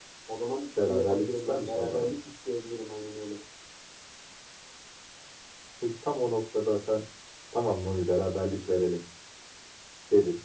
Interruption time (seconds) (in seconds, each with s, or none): 0.8 s